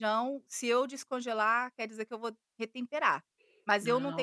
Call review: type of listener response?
listening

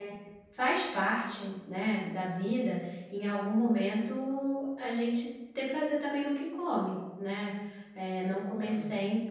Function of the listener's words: listening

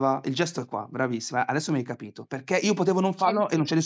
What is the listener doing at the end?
listening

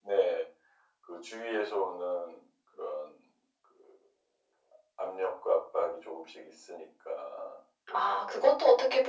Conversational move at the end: taking over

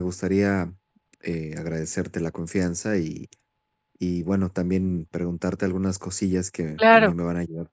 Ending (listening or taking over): listening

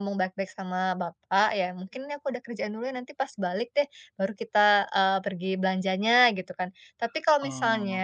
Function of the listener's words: listening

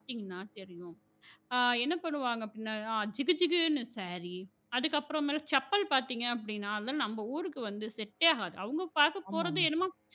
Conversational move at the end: listening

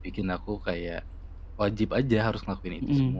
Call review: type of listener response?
taking over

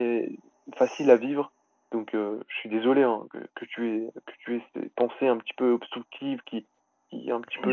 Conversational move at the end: listening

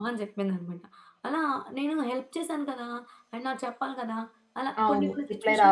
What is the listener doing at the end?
taking over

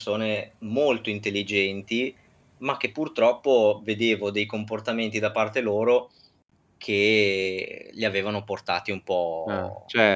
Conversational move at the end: taking over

